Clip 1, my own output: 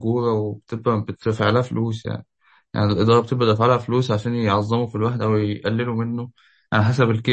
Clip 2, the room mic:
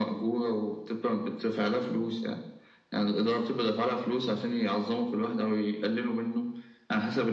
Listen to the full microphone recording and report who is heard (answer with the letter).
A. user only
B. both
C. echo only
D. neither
C